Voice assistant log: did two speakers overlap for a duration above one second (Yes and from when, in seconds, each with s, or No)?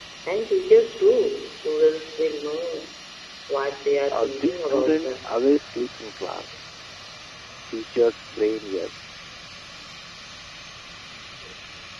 Yes, from 4.1 s